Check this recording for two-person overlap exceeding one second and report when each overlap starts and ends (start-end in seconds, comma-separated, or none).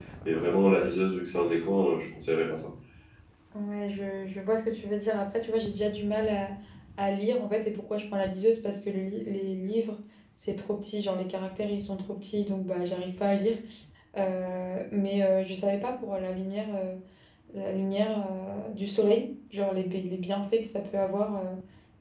none